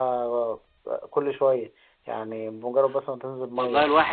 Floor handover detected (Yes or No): Yes